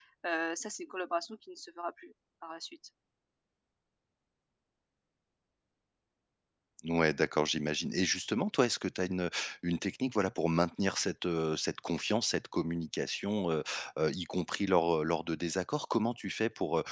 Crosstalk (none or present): none